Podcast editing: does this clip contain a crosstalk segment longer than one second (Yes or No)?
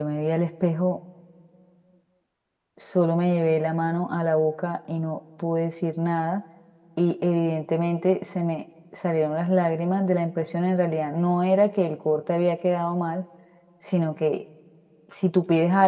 No